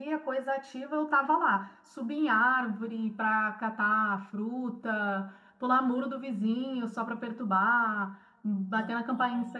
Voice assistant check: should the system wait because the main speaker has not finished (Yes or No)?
Yes